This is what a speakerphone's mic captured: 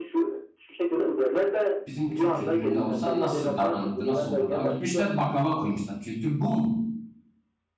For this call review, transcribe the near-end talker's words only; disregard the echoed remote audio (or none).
bizim Türk kültüründe olsa nasıl davranırdı, nasıl olurdu? Aa, Gitmişler baklava koymuşlar. Kültür bu mu?